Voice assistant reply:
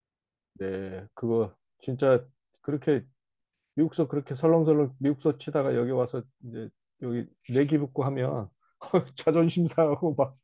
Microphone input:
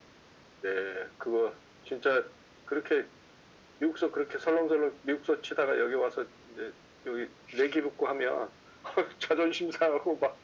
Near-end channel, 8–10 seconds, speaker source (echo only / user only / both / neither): echo only